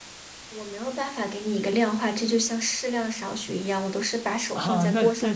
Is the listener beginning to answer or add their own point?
Yes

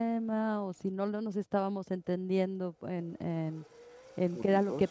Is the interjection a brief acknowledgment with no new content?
Yes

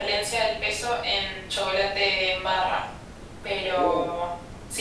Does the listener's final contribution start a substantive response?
No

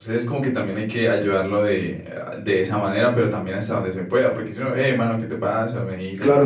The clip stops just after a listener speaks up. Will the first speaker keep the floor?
No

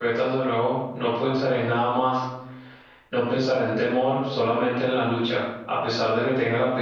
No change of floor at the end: Yes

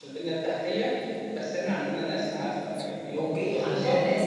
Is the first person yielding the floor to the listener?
Yes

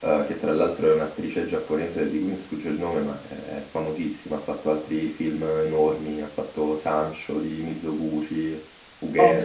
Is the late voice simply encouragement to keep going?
No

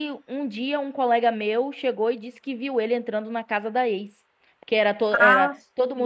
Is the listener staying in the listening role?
Yes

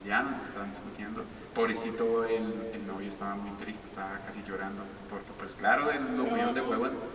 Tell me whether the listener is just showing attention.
Yes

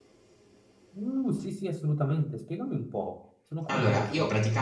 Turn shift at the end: Yes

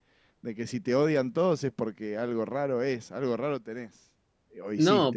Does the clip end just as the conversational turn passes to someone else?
Yes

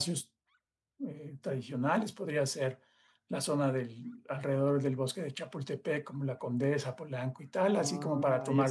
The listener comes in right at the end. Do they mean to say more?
Yes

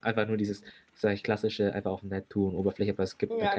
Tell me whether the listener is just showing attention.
No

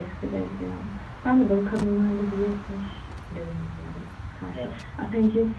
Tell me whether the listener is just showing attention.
Yes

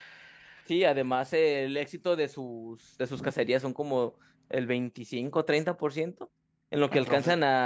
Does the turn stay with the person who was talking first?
Yes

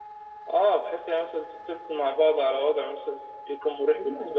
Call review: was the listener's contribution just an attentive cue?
No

